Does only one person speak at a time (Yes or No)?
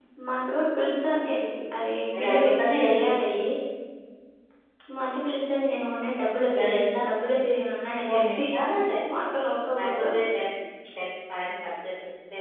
No